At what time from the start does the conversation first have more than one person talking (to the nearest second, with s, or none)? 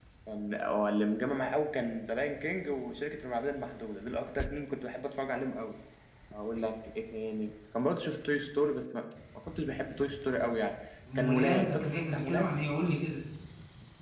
11 s